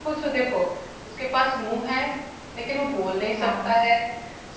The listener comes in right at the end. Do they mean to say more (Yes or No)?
No